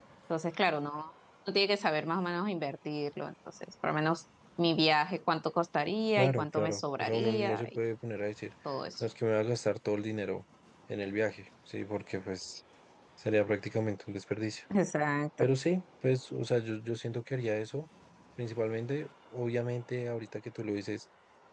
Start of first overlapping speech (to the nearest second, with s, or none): 6 s